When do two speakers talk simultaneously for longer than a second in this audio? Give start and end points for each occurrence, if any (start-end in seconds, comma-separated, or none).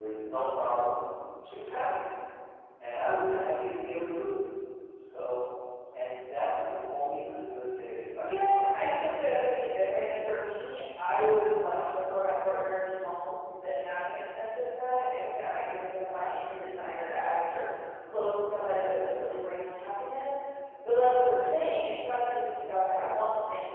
8.2-9.6